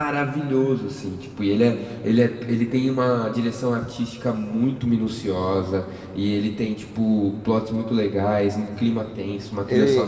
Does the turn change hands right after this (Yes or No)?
Yes